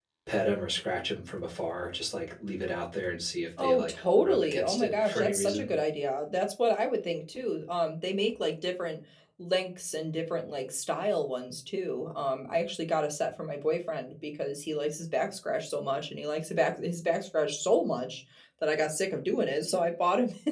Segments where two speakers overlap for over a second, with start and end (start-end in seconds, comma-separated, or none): 3.6-5.7